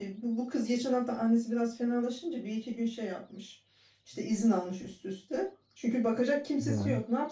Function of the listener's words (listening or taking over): listening